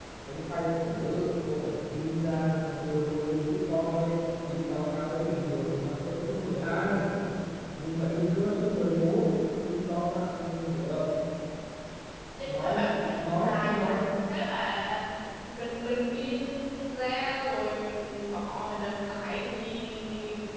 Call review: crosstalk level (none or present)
present